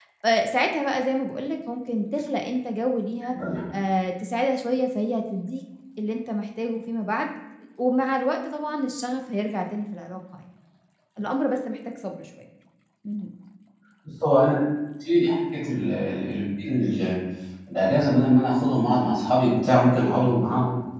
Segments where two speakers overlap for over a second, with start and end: none

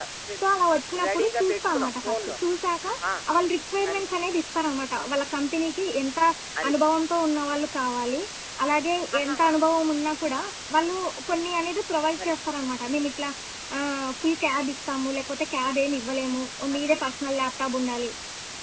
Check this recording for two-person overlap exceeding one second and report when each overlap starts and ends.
1.0-2.4

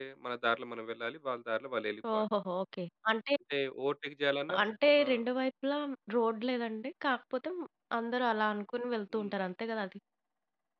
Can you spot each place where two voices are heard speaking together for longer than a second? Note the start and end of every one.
none

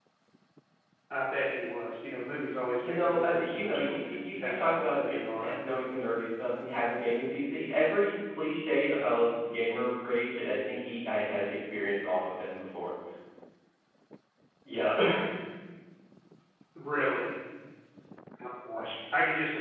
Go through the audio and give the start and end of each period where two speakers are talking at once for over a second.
2.8-5.5

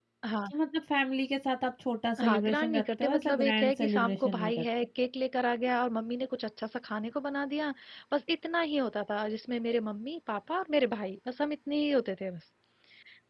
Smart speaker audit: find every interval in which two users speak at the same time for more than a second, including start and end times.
2.2-4.6

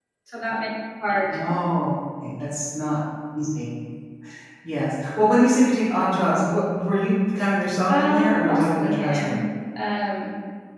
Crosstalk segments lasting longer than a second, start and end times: 7.9-9.4

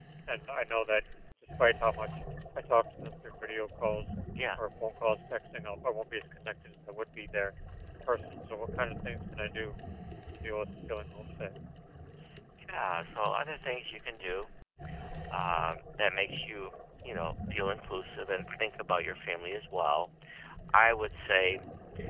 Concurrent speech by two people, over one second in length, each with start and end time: none

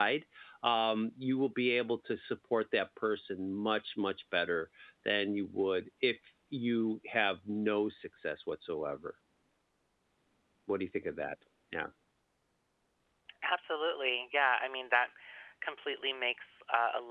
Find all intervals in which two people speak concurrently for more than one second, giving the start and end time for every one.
none

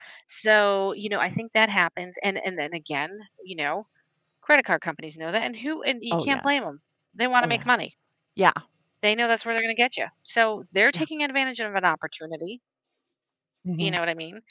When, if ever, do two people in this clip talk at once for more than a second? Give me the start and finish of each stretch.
none

